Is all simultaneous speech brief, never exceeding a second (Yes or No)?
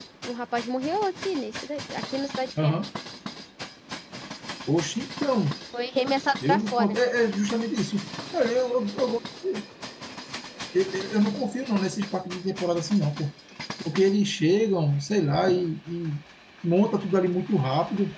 Yes